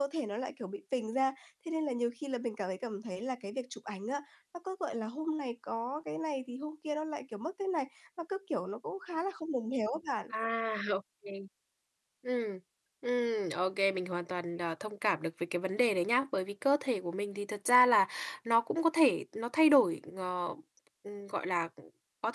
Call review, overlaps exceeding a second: none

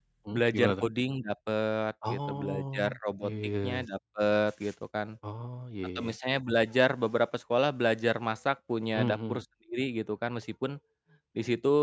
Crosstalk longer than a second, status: present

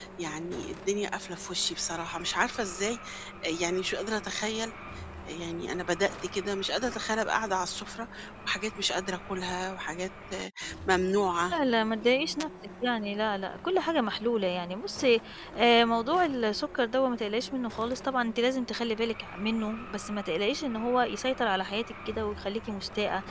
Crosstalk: none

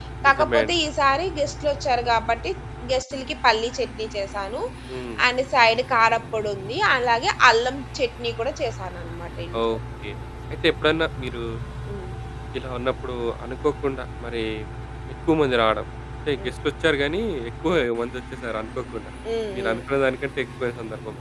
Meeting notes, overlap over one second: none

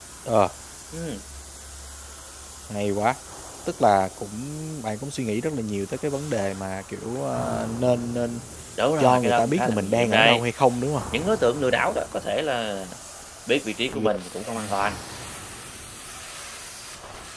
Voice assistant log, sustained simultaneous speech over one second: present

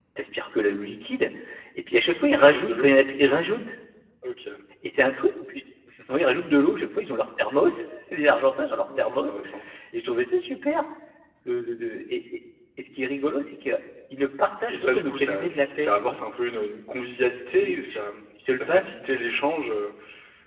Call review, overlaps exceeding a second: present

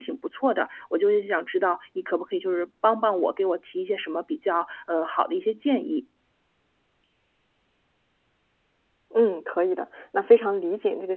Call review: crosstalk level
none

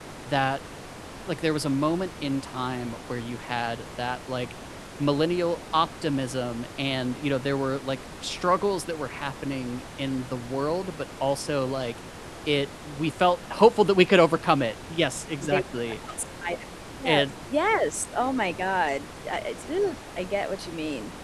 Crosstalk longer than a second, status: none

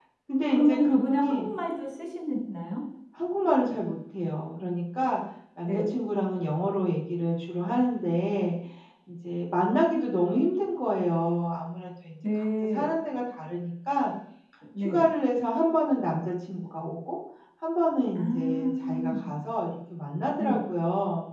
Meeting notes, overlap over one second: present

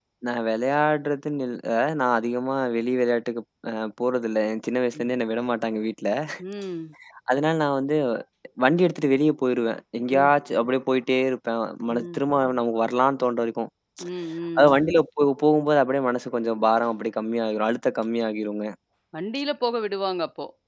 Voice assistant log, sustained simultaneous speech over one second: none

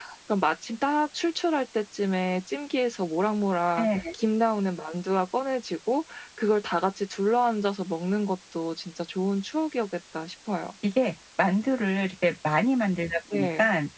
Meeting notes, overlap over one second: none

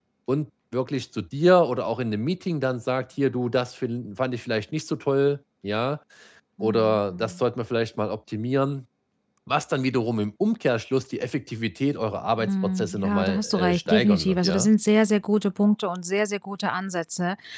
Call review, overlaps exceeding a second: present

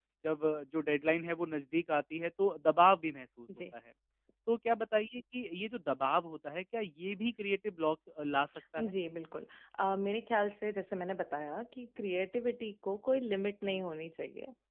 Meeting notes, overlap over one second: none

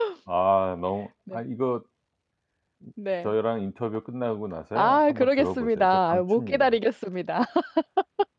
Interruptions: present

